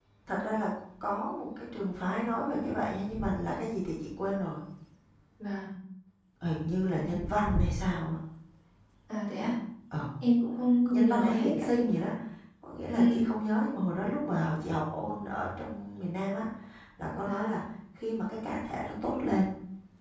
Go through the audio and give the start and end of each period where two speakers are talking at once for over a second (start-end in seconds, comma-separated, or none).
10.9-12.1